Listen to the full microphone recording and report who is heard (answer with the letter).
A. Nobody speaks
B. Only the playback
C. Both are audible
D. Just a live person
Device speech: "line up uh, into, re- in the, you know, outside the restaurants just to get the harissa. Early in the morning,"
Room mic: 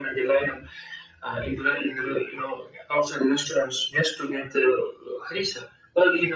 B